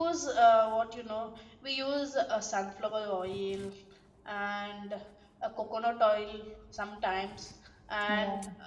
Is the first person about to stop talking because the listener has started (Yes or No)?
No